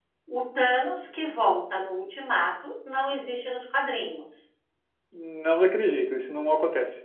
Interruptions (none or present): none